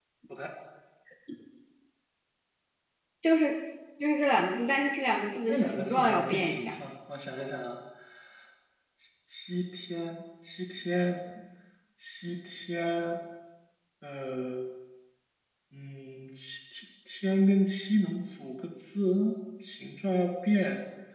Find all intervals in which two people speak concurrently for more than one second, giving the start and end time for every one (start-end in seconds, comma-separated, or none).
5.5-6.7